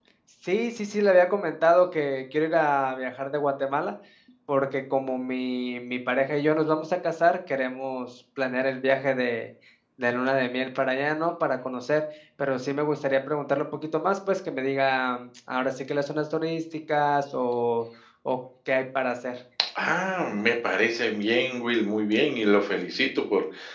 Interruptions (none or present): none